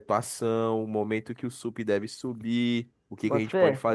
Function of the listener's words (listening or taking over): listening